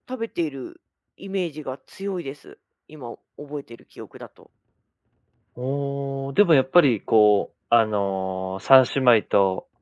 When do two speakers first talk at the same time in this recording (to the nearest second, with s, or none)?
none